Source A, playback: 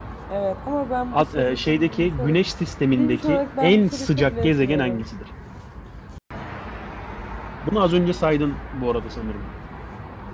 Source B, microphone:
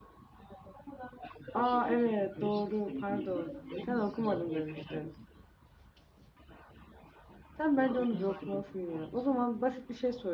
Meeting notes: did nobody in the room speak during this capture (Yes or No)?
No